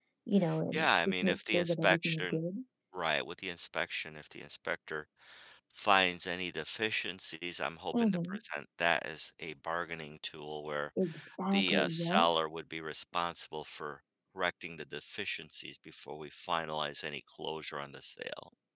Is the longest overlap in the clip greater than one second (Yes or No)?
Yes